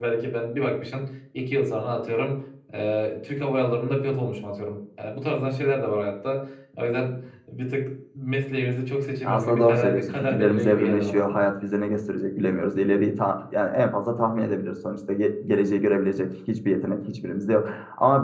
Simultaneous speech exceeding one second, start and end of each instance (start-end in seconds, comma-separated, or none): 9.2-11.2